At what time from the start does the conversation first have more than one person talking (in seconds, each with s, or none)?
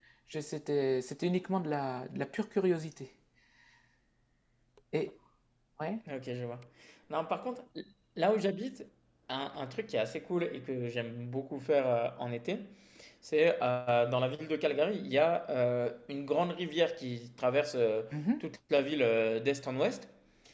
none